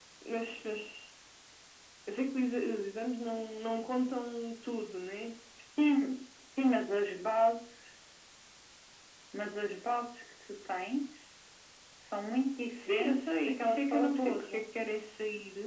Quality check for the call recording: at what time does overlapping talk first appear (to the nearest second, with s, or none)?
13 s